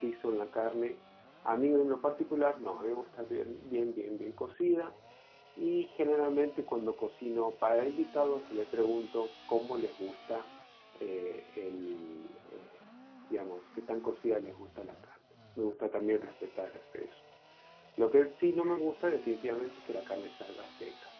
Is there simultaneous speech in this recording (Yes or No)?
No